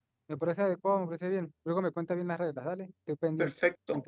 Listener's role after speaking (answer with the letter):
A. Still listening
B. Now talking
B